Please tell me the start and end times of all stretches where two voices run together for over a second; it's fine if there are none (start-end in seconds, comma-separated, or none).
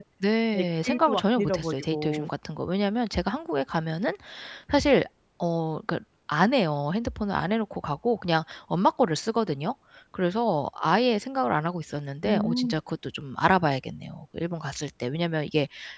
0.5-2.3